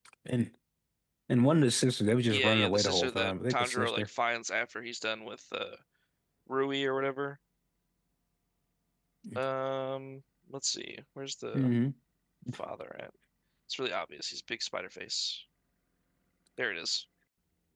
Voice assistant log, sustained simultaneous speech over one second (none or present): present